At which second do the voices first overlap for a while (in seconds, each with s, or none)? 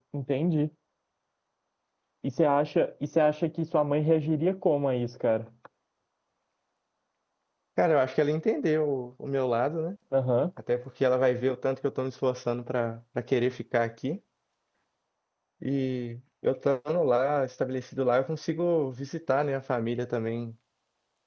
none